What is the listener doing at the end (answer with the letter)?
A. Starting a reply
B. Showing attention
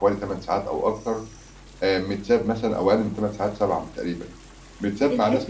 A